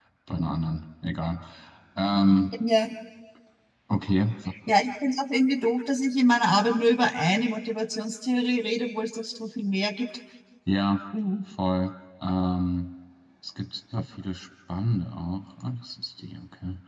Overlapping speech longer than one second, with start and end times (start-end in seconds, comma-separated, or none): none